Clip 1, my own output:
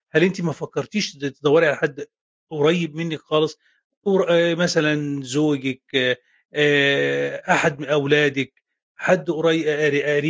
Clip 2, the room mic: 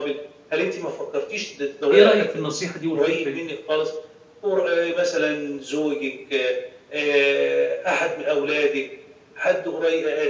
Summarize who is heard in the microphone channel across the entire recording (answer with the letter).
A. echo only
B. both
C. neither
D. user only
B